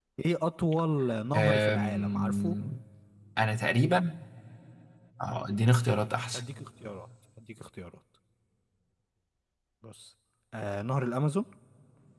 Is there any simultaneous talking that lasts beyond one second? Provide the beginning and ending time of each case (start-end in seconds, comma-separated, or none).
1.3-2.5